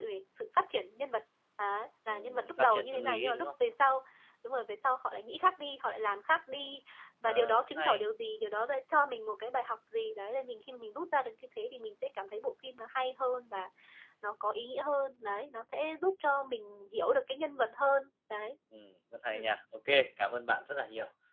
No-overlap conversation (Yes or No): No